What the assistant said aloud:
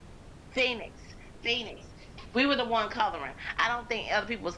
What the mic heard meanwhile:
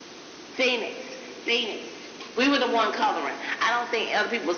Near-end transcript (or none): none